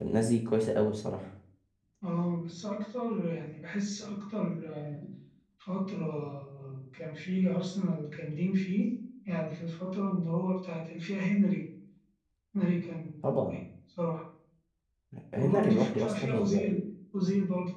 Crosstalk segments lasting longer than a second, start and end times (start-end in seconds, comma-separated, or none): 15.4-16.8